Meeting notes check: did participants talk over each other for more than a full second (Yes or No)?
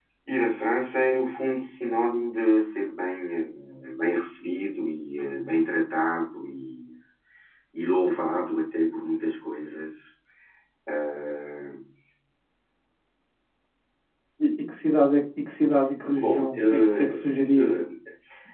Yes